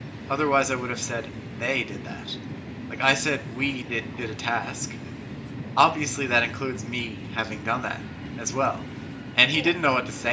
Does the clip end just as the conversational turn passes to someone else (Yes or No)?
No